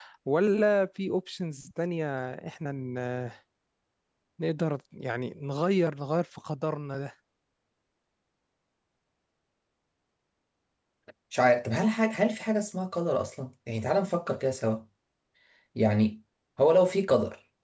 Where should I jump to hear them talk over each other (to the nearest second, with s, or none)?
none